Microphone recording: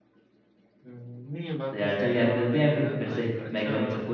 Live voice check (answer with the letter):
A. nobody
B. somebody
B